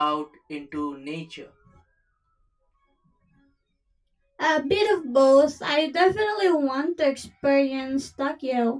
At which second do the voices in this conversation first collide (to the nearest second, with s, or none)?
none